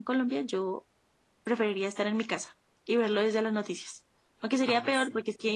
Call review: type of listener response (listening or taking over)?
listening